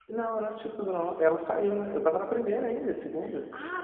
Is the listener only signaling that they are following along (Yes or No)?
No